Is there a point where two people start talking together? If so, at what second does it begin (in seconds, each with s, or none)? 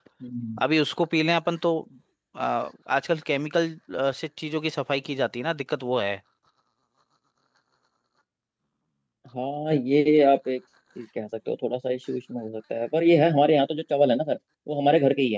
none